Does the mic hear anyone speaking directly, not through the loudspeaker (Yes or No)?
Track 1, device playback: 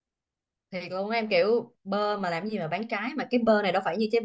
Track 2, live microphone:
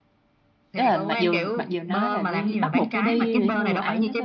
Yes